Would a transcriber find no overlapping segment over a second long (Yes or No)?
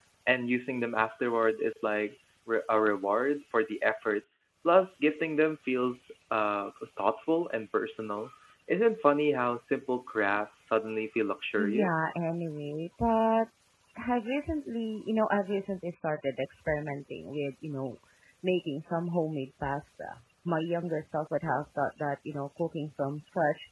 Yes